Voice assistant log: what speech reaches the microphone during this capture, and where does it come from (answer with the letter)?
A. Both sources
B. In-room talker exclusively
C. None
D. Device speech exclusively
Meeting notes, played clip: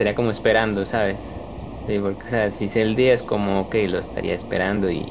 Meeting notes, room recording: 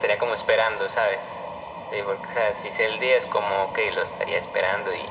D